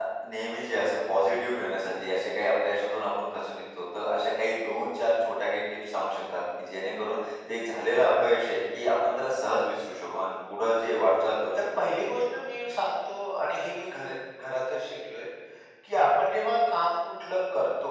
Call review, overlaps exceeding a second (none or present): none